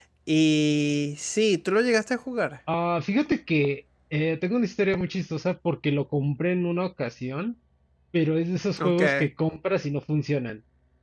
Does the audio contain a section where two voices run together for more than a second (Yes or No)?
No